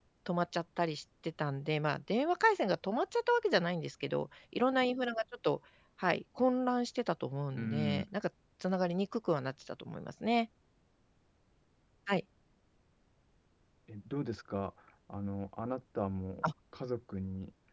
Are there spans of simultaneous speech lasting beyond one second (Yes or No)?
No